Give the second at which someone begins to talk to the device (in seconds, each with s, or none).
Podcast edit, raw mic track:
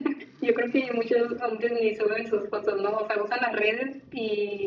none